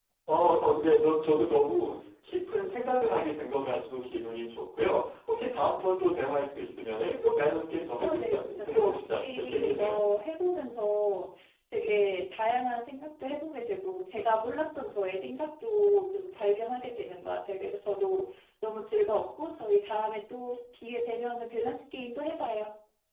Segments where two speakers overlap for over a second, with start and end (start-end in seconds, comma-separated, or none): 8.0-10.0